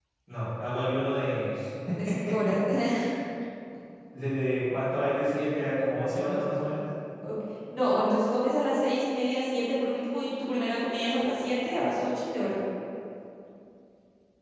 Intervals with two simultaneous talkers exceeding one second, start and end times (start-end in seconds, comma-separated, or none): none